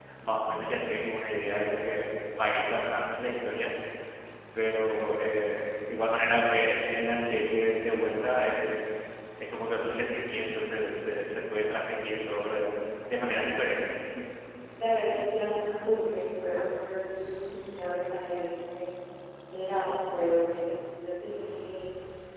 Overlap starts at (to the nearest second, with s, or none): none